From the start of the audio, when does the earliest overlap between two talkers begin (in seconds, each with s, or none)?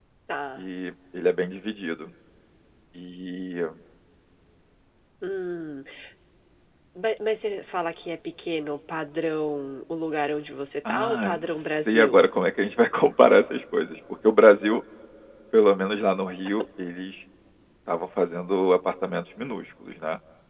10.8 s